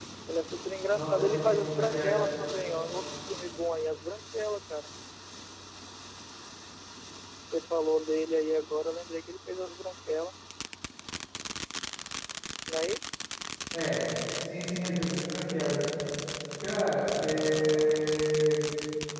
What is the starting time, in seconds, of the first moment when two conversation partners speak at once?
1 s

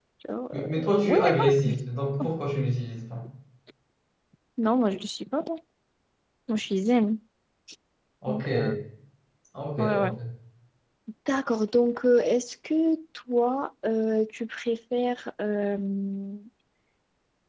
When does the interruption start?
1 s

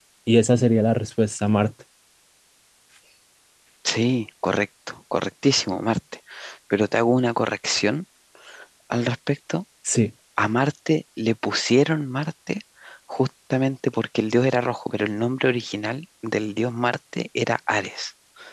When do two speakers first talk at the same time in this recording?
none

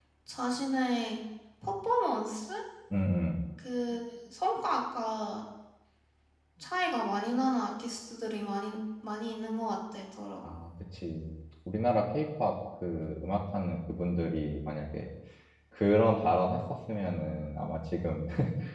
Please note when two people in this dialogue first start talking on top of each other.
none

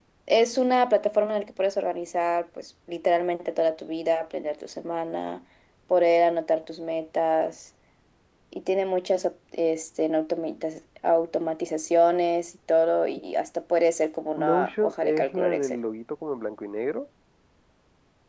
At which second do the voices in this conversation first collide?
14 s

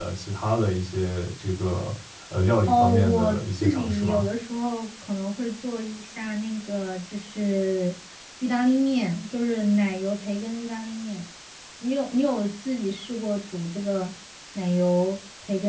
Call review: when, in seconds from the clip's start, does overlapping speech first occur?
3 s

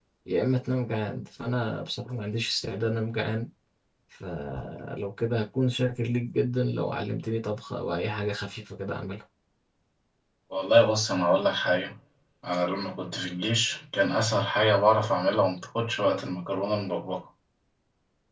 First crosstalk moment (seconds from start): none

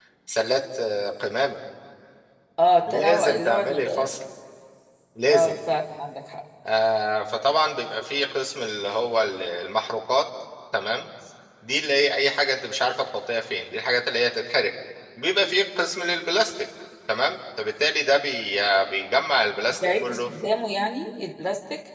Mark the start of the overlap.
3 s

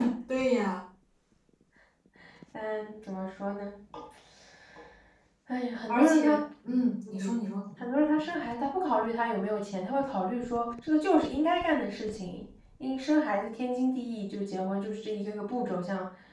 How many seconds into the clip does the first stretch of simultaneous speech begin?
6 s

